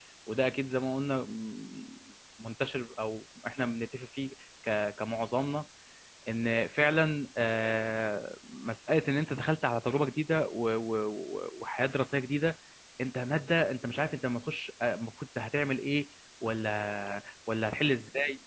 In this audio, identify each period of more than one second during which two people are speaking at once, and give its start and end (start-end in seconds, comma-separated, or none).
none